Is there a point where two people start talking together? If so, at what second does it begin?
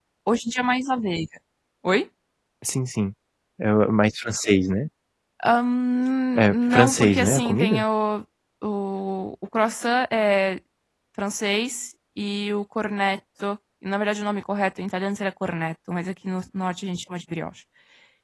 6 s

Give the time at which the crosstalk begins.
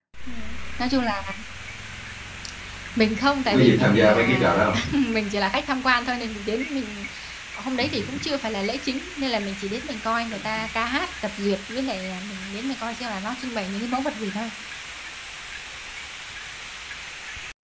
3 s

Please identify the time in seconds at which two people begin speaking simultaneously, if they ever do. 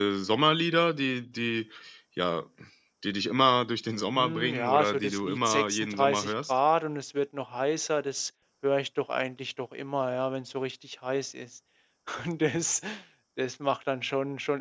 4 s

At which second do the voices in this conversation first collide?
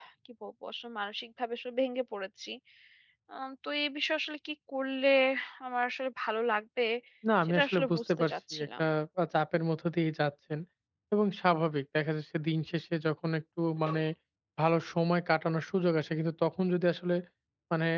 7 s

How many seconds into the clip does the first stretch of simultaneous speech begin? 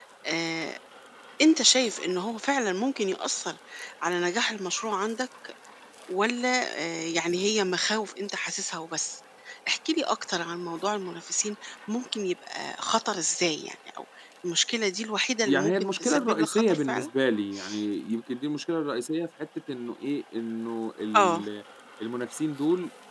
15 s

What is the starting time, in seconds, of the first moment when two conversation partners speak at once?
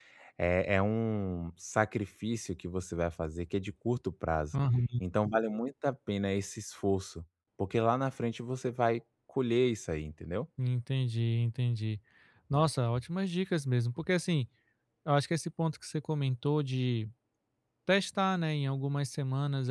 none

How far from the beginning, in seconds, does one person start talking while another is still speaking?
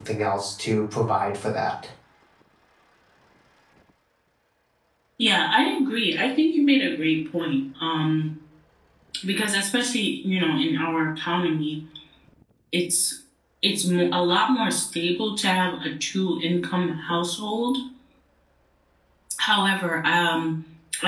none

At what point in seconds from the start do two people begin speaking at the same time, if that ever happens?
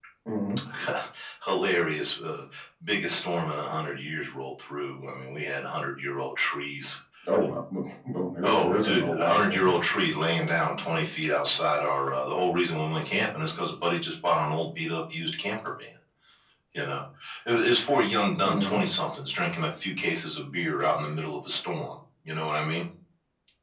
8 s

